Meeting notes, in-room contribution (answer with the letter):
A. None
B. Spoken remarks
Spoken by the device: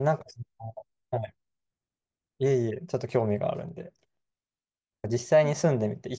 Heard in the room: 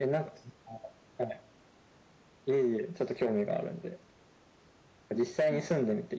A